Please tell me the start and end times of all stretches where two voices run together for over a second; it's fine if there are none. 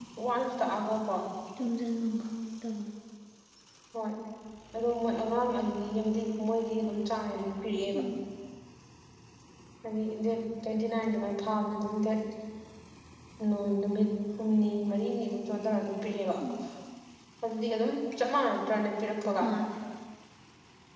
none

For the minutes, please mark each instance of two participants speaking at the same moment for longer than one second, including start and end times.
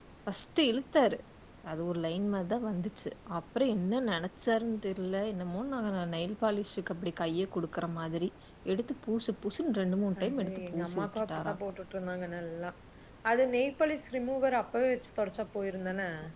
10.2-11.6

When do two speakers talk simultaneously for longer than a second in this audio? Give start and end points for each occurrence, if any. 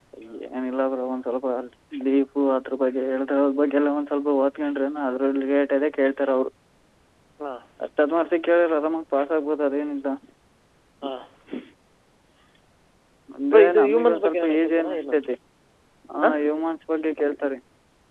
13.5-15.1

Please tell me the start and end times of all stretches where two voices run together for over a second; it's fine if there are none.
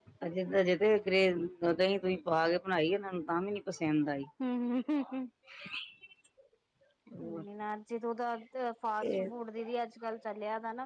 none

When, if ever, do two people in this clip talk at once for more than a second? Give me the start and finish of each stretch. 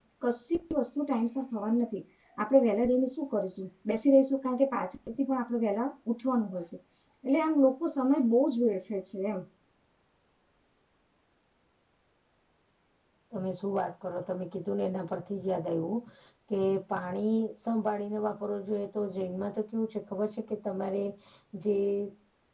none

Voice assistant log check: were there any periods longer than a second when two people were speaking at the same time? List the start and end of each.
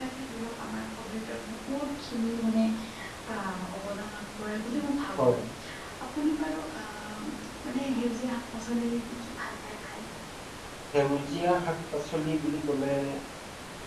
none

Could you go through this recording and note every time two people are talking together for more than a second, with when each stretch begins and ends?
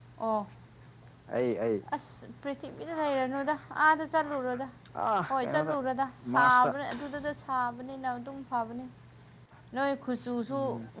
none

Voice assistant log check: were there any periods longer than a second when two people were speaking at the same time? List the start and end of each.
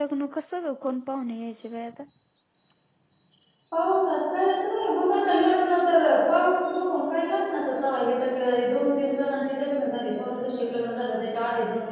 none

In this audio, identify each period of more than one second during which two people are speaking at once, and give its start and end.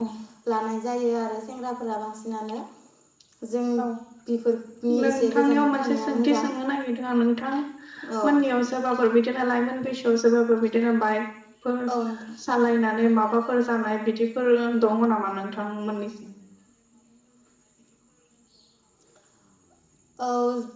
5.0-6.5

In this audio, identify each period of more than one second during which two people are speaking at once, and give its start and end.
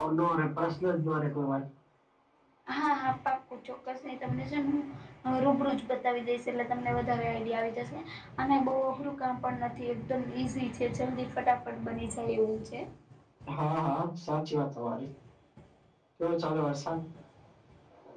none

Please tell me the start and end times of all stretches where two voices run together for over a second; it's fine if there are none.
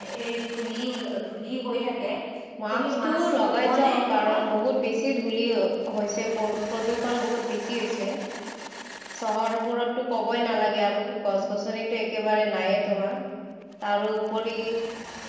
2.7-4.4

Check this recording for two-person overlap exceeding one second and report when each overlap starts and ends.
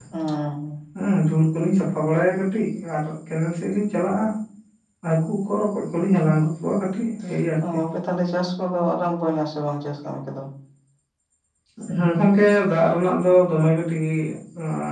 none

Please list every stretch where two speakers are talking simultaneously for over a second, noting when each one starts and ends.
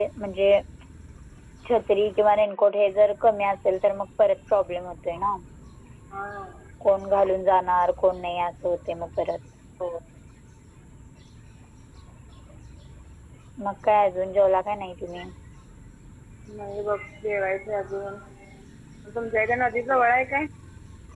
none

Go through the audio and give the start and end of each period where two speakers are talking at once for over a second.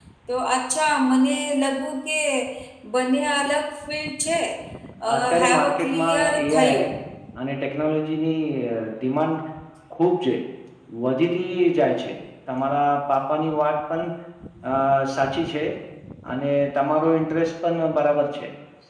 5.1-6.8

